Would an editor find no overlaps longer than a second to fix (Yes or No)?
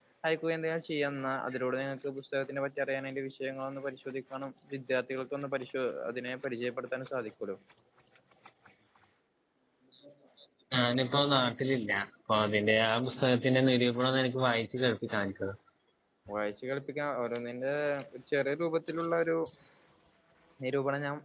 Yes